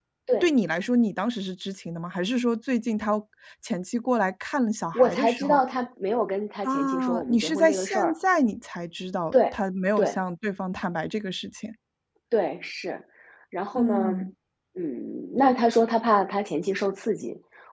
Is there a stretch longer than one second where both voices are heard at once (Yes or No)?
Yes